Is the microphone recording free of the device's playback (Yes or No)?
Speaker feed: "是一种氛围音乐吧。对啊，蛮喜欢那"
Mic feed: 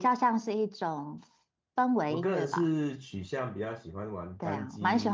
No